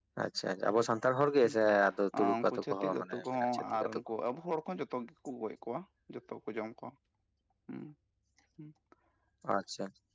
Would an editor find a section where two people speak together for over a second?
Yes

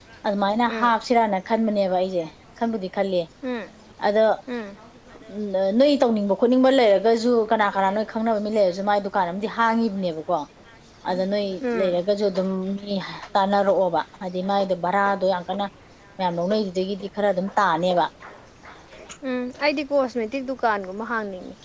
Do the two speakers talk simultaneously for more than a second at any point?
No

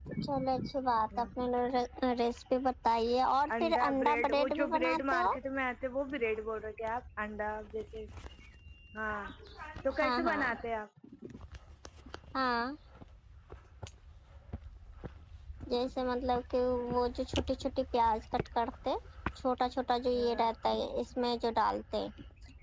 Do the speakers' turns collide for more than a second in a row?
Yes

